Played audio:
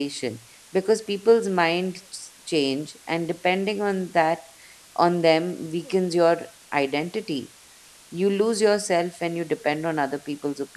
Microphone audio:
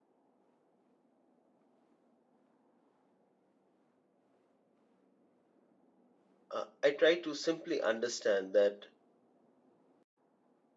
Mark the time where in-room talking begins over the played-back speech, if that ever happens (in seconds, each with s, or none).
6.5 s